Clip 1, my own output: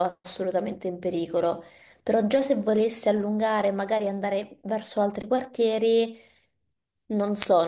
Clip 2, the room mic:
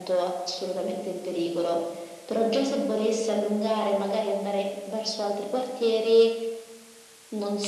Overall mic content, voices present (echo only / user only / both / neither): echo only